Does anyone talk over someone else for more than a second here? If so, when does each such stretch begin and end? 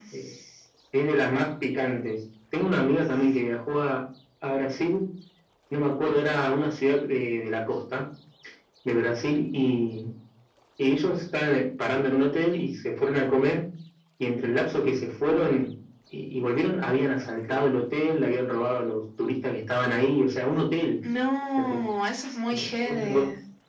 none

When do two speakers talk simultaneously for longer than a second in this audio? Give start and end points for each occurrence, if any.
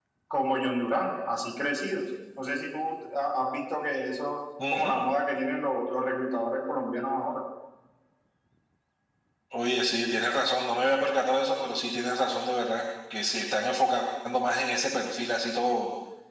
none

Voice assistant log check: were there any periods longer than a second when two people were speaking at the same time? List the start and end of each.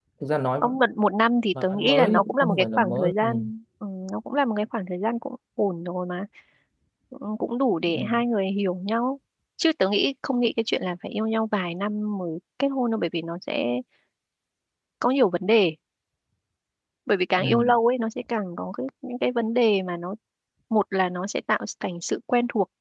1.7-3.3

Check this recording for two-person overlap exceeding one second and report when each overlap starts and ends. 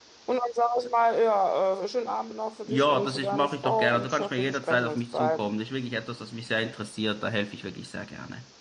2.7-5.4

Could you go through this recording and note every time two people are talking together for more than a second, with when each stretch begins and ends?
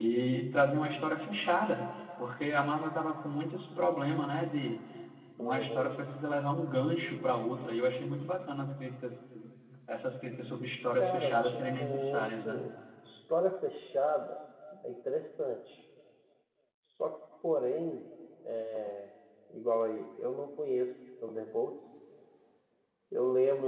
11.0-12.6

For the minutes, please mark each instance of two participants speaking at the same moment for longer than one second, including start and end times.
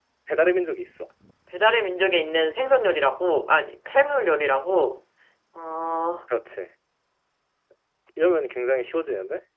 none

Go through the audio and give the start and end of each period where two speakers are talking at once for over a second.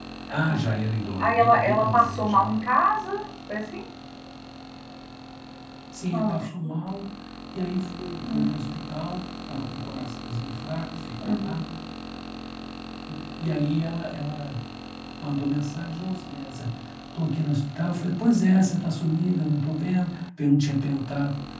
1.2-2.5

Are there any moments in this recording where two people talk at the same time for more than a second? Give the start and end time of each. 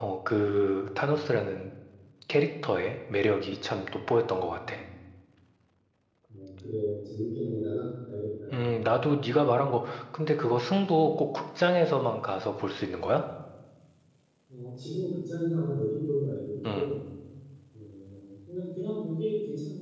none

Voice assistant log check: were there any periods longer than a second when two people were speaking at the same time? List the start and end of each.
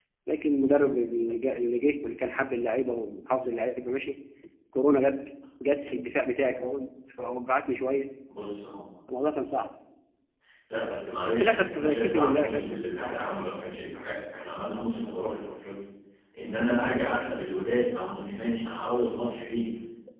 11.2-12.8

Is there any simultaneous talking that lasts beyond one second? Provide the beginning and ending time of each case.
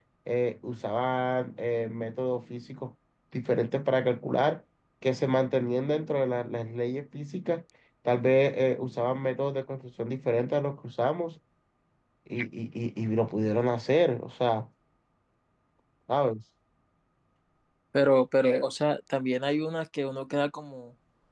none

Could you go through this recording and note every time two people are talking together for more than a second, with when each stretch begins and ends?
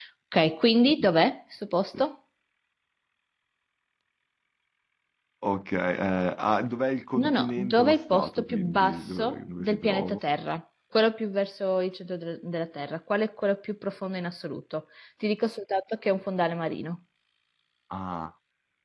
7.2-10.2

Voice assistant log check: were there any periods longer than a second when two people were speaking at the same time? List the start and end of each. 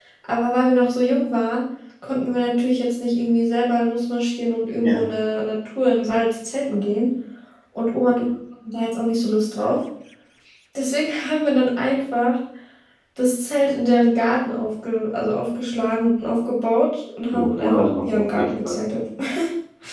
17.3-18.8

